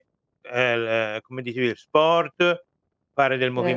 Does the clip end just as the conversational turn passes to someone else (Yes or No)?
No